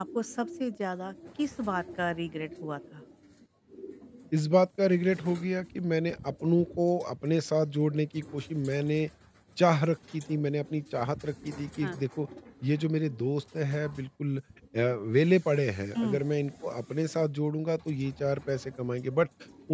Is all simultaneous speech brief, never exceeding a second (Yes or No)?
Yes